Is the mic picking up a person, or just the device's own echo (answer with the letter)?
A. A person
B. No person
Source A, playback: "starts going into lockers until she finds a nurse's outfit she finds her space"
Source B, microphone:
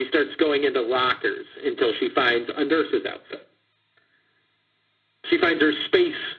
B